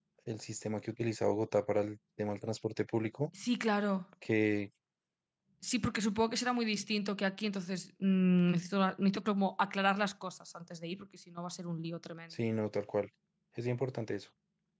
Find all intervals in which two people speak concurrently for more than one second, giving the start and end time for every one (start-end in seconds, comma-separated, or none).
none